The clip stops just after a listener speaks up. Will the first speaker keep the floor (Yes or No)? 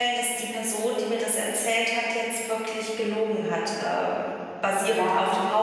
Yes